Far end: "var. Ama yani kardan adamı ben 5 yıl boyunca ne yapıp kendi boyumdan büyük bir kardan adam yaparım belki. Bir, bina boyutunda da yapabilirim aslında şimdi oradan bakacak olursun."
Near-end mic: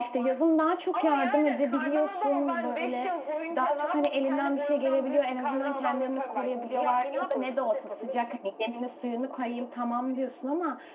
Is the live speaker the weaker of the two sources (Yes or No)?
No